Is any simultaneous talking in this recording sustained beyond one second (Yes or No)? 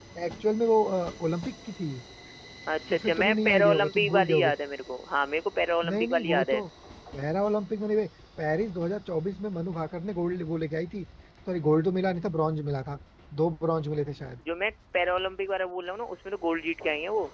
Yes